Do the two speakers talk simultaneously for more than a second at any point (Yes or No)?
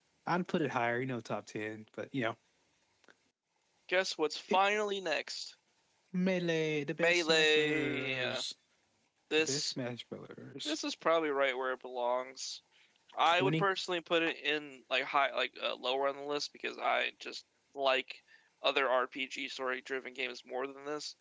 Yes